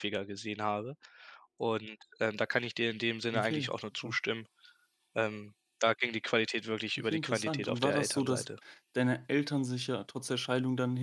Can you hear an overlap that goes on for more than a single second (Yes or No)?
Yes